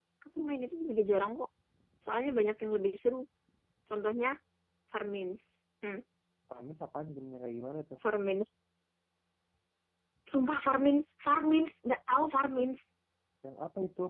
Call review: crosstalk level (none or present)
none